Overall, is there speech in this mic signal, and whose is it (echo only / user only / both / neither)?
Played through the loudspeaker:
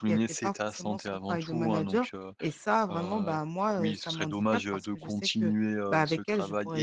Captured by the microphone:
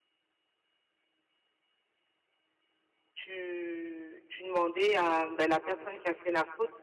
user only